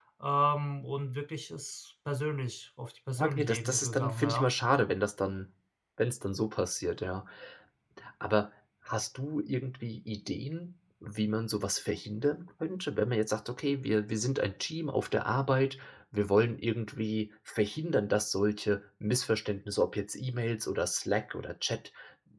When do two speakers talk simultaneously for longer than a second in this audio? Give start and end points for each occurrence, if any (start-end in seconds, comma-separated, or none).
3.2-4.5